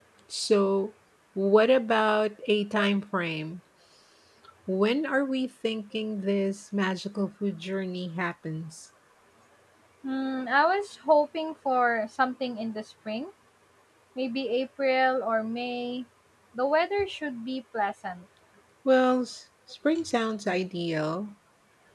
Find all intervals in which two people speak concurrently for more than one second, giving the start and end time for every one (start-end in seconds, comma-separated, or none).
none